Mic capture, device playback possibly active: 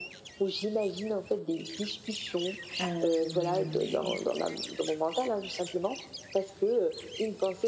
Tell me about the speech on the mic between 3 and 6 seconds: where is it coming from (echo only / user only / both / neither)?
both